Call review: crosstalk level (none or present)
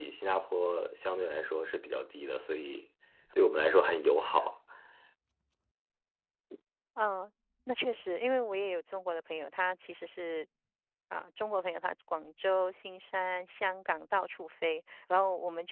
none